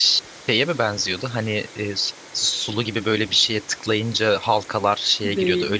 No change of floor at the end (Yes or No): No